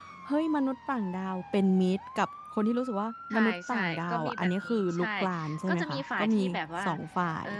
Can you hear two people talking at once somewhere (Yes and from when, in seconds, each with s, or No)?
Yes, from 3.3 s